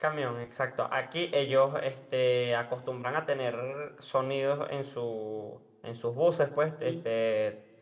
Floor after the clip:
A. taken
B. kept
B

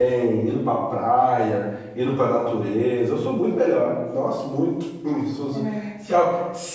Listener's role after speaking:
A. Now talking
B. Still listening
B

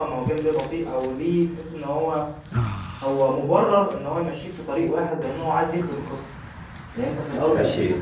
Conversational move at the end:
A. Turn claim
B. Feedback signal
A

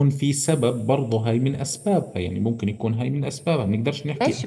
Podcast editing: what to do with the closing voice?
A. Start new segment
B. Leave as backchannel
A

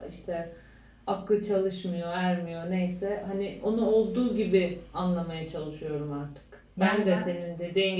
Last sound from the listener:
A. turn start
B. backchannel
B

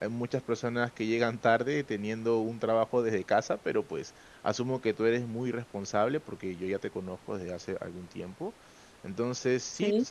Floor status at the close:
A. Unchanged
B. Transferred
A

